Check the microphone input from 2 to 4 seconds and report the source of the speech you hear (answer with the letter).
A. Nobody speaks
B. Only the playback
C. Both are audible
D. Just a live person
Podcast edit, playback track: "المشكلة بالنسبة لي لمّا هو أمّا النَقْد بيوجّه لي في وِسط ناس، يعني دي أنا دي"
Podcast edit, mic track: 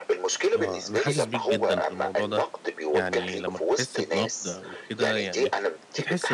C